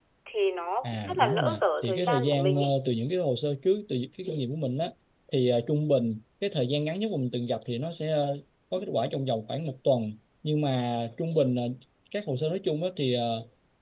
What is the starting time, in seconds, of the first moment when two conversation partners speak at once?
1 s

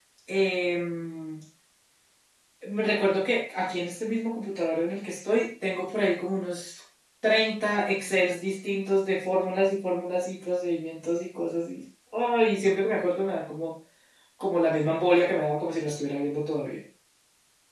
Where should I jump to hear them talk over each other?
none

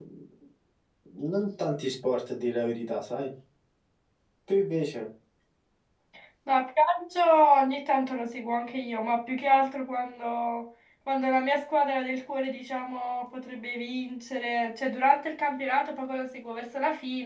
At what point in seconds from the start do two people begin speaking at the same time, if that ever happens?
none

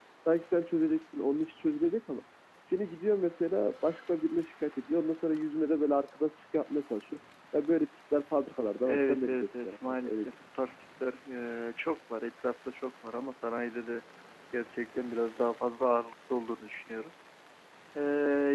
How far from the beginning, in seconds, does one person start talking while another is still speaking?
9 s

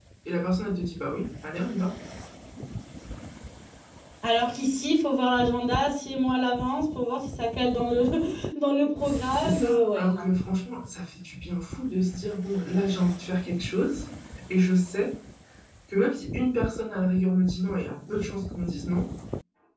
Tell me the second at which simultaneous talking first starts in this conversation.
9 s

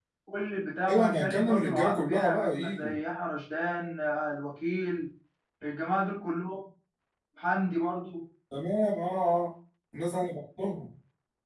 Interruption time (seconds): 1 s

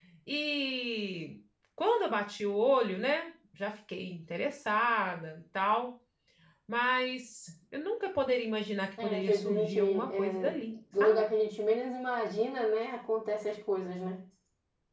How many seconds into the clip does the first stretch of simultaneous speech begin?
9 s

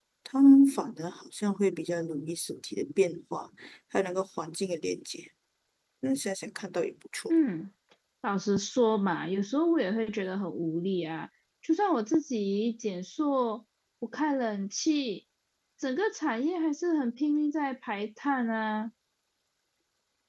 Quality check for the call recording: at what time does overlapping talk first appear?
none

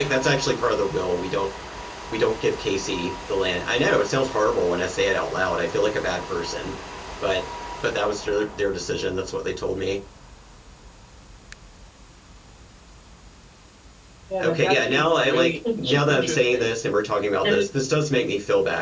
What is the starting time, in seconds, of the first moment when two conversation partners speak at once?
14 s

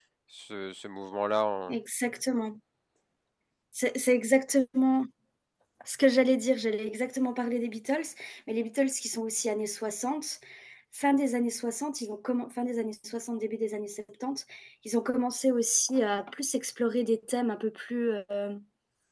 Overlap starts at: none

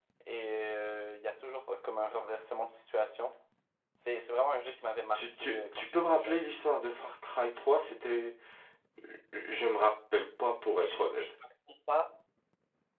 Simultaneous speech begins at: 5 s

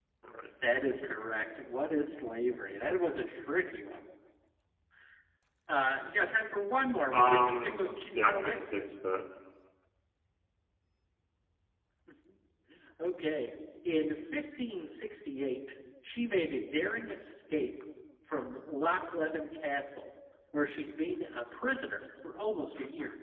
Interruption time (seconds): 7 s

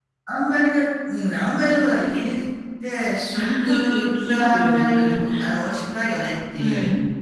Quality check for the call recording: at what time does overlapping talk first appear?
3 s

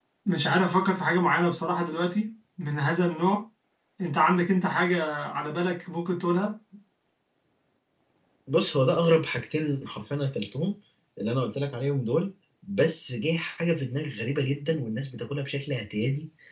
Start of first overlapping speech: none

